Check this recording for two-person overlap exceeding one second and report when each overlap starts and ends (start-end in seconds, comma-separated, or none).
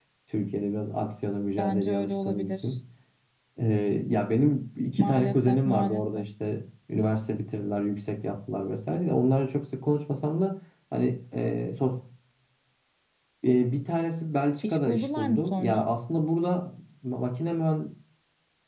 1.6-2.8, 5.0-6.2, 14.6-15.9